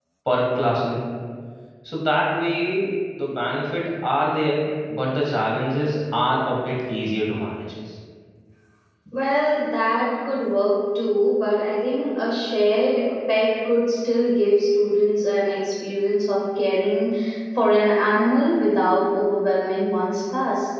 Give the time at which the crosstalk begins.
none

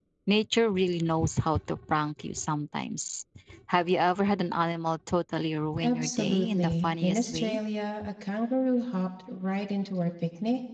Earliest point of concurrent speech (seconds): 5.8 s

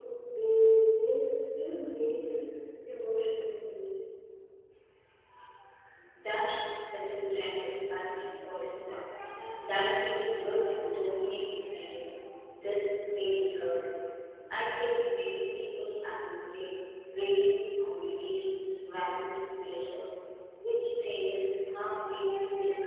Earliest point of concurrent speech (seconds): none

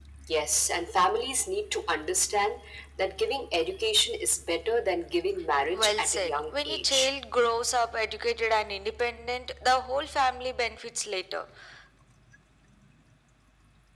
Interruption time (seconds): 5.6 s

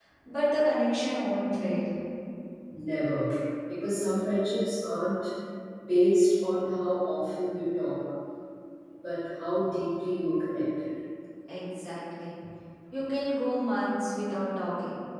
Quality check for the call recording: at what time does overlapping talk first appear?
none

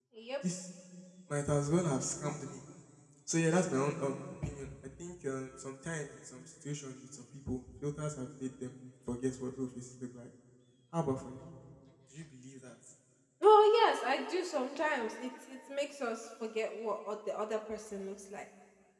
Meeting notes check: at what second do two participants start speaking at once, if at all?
none

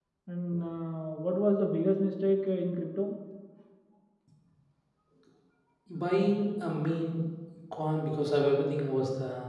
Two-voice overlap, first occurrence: none

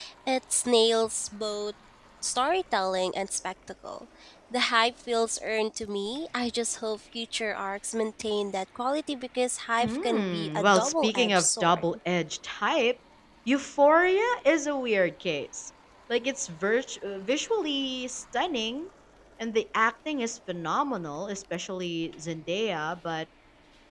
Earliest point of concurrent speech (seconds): 9.8 s

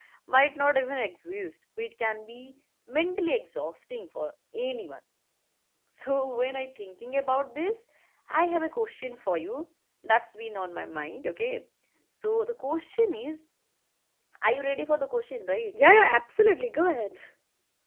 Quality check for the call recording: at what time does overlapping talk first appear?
none

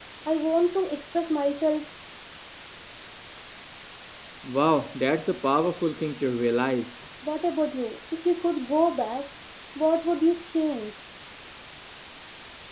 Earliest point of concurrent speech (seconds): none

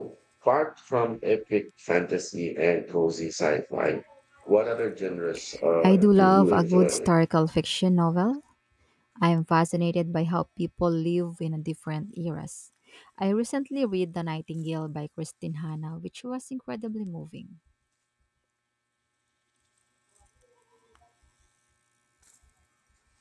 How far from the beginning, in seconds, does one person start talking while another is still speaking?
5.8 s

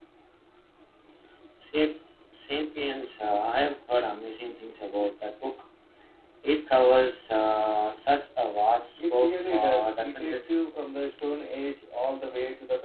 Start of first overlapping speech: 9.0 s

